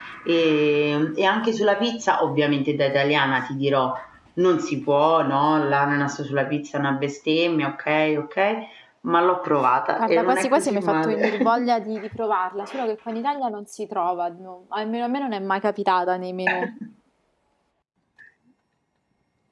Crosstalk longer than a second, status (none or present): present